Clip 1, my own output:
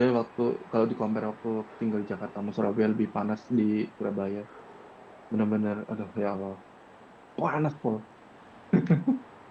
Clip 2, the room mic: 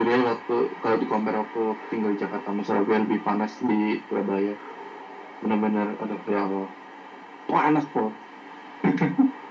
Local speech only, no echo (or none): none